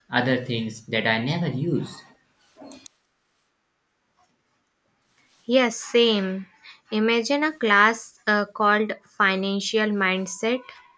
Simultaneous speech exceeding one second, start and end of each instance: none

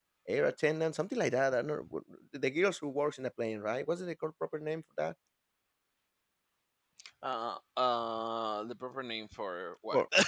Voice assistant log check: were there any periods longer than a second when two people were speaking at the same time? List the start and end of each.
none

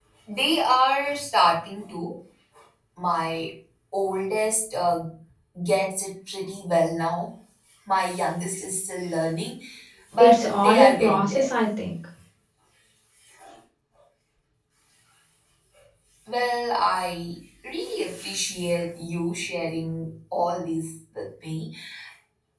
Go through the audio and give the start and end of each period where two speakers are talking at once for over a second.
10.2-11.5

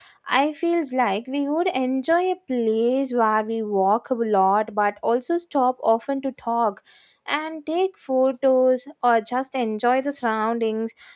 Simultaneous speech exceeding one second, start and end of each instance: none

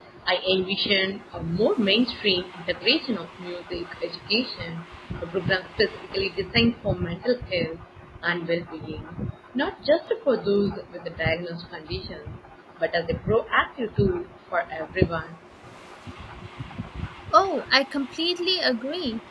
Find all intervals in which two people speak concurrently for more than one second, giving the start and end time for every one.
none

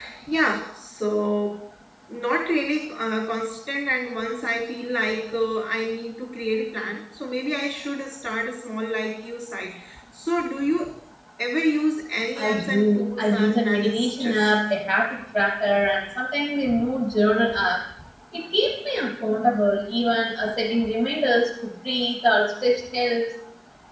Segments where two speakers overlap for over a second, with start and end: 12.4-14.5

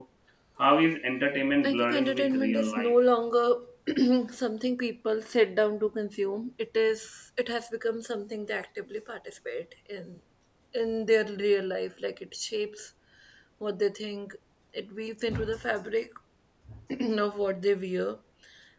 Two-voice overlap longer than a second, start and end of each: 1.6-3.0

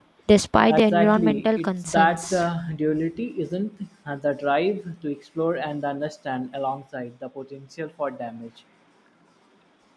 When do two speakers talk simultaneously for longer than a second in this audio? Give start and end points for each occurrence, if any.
0.7-2.4

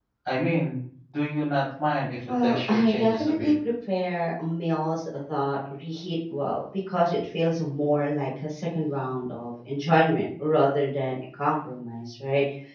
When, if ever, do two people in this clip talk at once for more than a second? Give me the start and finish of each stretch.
2.2-3.5

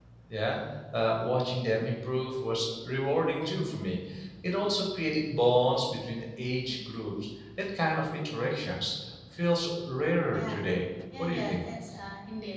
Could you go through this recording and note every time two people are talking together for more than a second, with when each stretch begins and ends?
none

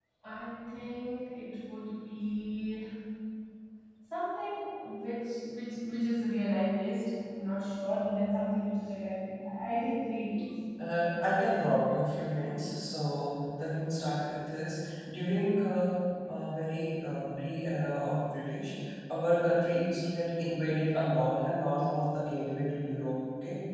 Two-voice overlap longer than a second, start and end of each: none

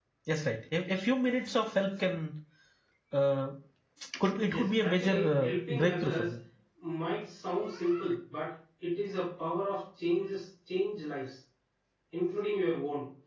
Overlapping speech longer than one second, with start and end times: 4.5-6.3

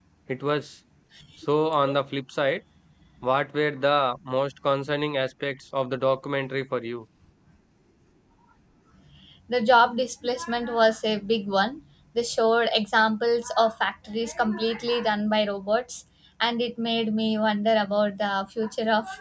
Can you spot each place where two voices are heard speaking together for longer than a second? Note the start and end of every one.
none

